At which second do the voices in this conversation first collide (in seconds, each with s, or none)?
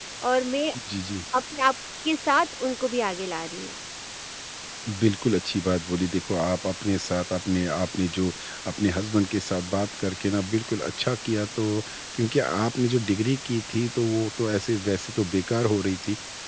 none